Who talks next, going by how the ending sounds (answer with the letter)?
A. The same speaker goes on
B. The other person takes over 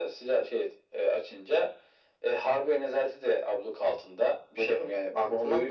B